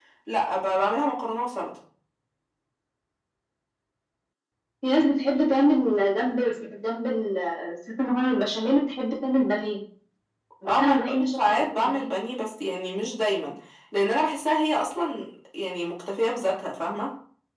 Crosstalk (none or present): present